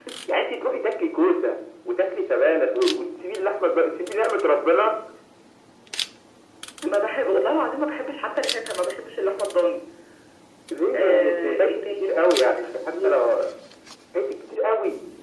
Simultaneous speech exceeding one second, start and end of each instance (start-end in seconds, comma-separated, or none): 10.9-13.1